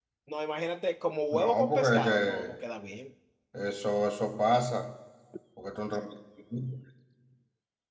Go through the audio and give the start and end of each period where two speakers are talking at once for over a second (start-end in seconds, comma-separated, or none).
1.3-2.5